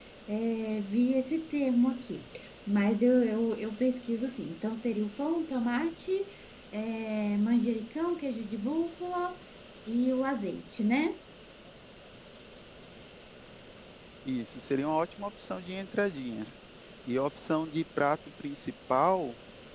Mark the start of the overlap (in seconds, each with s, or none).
none